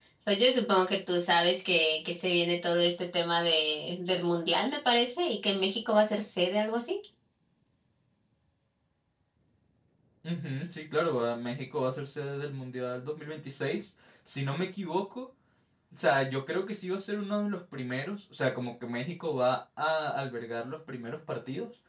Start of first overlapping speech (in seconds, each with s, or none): none